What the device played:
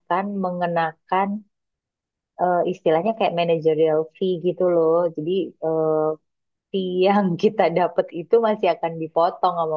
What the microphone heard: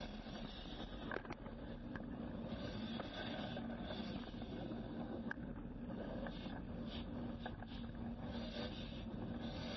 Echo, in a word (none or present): none